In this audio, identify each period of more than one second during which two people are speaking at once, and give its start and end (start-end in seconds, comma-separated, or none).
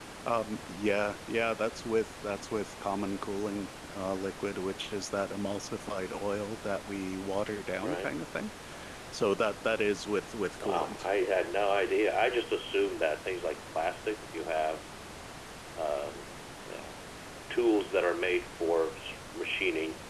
none